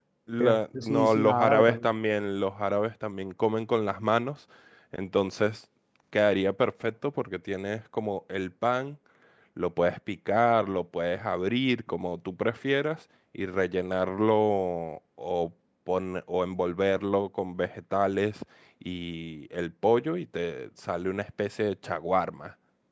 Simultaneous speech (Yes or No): Yes